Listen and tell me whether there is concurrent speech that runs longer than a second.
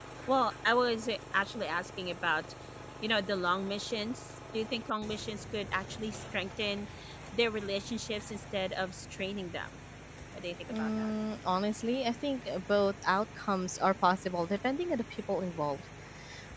No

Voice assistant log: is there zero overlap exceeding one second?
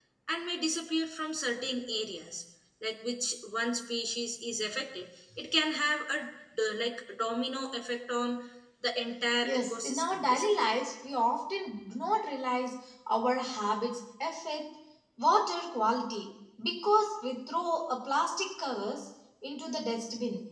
No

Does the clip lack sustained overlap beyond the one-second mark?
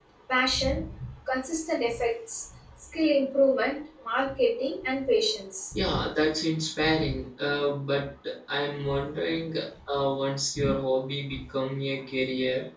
Yes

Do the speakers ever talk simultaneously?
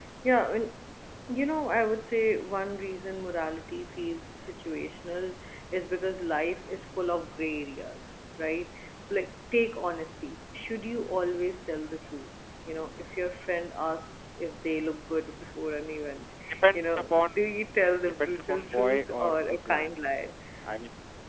Yes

